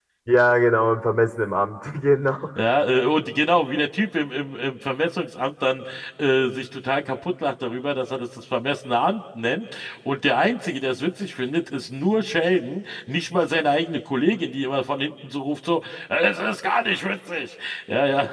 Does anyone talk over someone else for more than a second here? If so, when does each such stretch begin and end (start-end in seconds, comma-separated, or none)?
none